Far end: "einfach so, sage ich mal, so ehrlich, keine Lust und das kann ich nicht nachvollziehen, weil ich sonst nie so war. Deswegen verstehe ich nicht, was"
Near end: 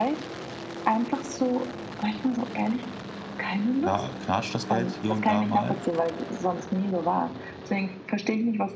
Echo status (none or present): present